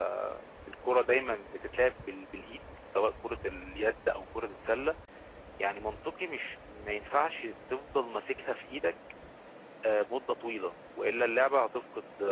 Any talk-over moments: No

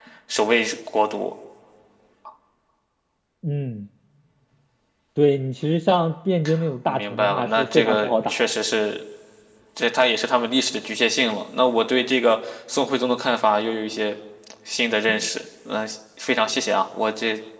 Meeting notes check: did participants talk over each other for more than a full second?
Yes, from 6.9 s

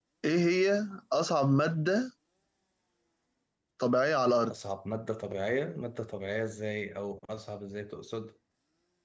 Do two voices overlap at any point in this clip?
No

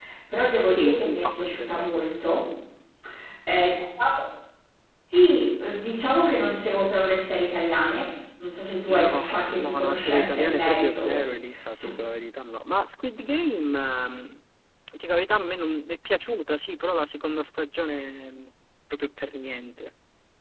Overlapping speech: Yes, from 0.7 s

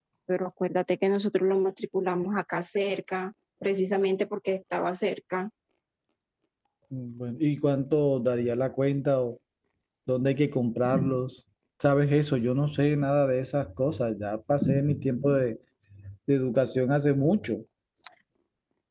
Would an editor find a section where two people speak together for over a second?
No

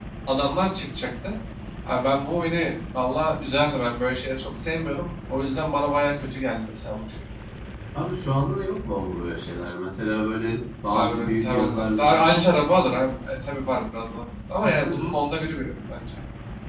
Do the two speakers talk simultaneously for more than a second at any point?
Yes, from 10.9 s

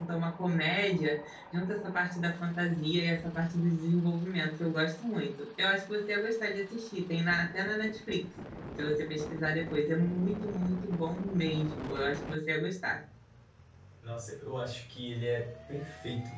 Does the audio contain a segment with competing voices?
No

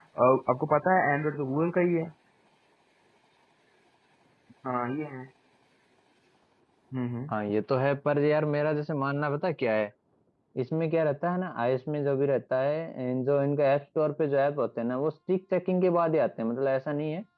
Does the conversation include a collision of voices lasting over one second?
No

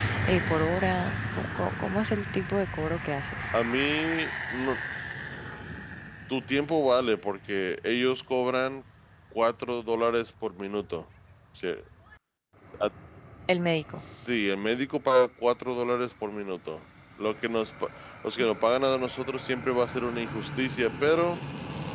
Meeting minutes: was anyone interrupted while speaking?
No

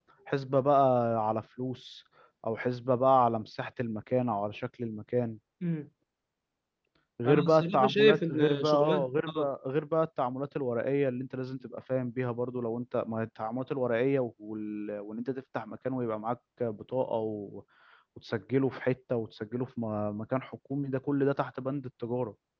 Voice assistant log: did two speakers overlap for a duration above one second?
Yes, from 7.3 s

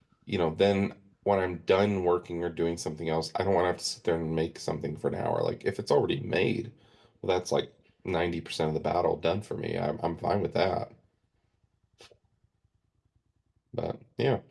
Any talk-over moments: No

